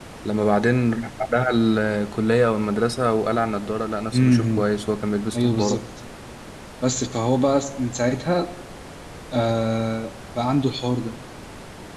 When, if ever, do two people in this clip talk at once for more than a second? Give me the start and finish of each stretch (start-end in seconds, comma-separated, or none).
none